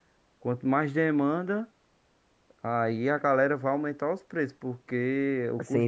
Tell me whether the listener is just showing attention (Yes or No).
No